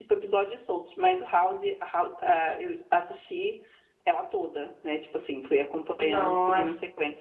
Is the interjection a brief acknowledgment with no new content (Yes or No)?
No